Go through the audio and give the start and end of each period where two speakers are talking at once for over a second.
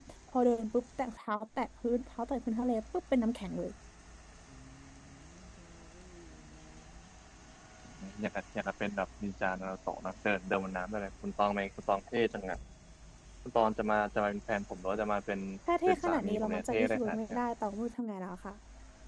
15.9-17.4

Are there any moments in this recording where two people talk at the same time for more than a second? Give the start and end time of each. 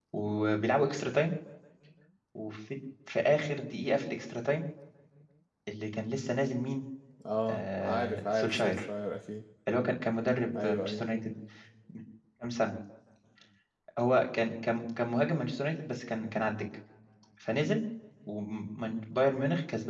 7.5-8.9

